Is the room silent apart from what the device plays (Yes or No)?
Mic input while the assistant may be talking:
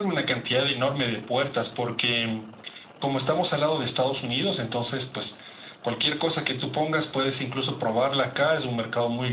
Yes